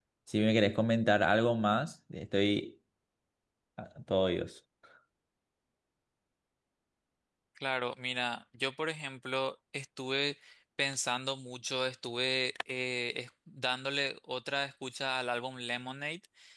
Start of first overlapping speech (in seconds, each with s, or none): none